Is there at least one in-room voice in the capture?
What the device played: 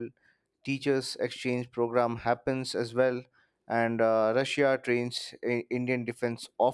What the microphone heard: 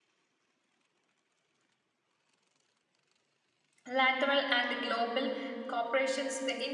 Yes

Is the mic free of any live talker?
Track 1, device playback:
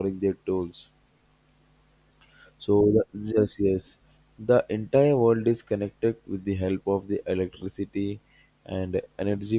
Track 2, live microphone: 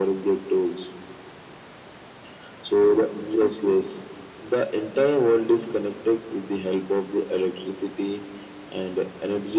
Yes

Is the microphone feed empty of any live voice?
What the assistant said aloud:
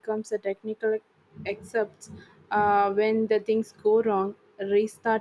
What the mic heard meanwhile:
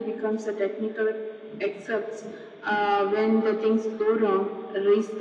Yes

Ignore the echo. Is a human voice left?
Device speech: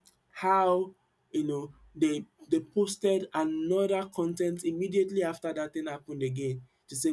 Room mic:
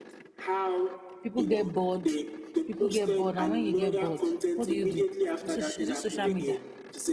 Yes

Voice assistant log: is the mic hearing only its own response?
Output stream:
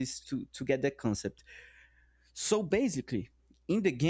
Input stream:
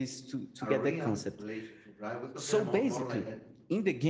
No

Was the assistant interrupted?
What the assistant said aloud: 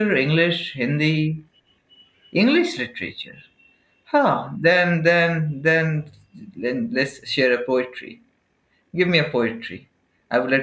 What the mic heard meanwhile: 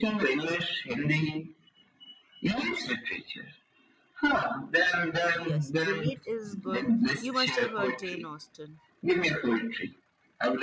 Yes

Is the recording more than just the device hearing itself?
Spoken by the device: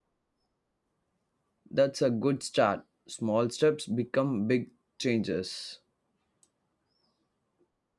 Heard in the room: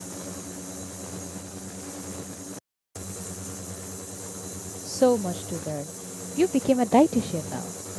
Yes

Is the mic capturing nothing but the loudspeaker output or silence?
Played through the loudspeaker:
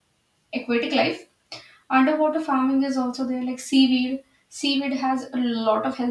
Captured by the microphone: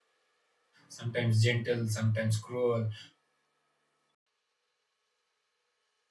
No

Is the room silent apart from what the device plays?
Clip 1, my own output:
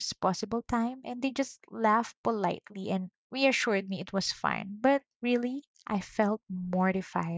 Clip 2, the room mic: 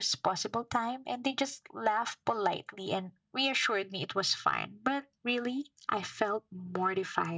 Yes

